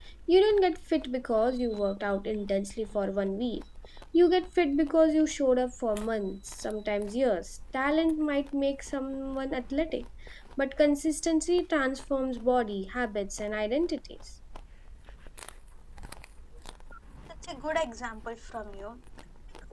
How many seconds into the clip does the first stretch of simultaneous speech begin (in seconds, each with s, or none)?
none